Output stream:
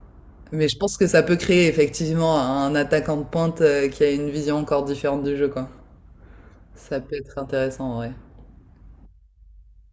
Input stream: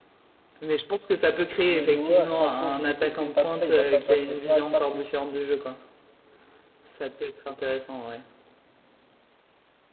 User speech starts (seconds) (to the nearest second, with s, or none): 2 s